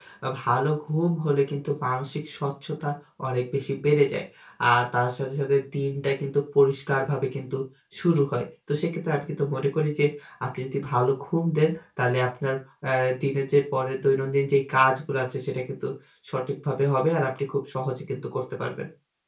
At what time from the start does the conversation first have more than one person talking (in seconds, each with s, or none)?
none